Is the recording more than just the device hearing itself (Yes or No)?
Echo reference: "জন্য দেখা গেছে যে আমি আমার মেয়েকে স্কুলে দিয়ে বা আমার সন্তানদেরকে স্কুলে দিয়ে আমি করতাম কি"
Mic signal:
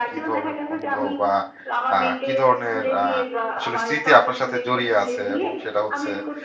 Yes